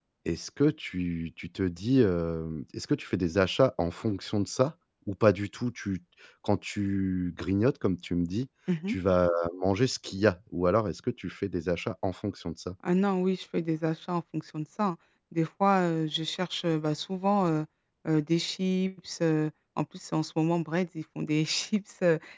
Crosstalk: none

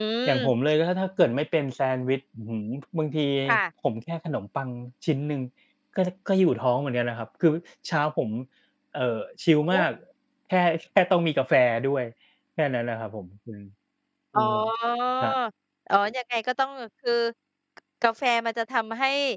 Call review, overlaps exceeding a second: none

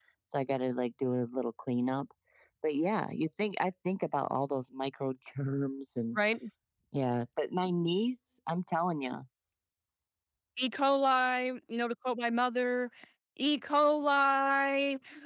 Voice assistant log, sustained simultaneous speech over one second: none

